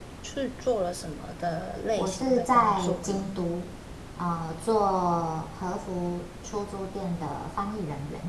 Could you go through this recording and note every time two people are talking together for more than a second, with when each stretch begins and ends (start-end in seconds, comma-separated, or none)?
2.0-3.3